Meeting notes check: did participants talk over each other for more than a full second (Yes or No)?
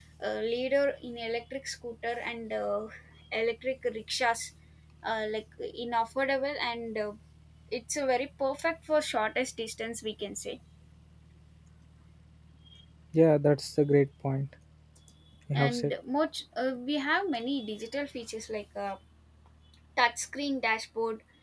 No